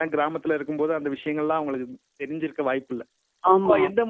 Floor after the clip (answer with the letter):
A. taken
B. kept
B